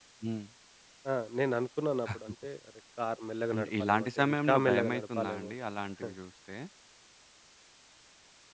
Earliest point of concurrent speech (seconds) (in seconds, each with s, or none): 3.5 s